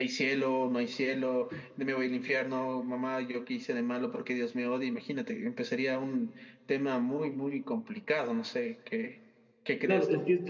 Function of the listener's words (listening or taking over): taking over